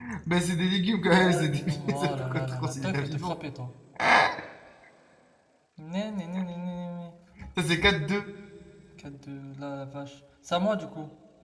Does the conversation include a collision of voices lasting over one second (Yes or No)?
Yes